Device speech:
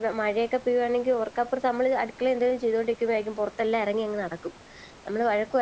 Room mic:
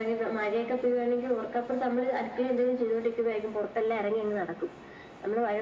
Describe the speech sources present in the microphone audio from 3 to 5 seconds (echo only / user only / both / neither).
echo only